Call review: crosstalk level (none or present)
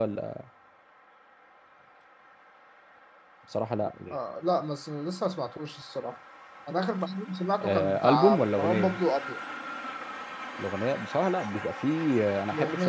present